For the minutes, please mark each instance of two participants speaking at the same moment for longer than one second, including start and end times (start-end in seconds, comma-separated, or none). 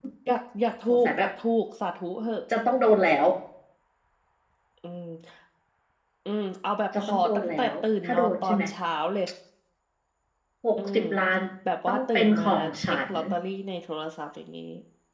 7.0-8.6, 11.9-13.1